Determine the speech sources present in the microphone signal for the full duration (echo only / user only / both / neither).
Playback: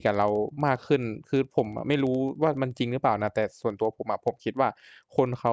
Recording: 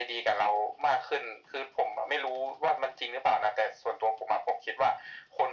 echo only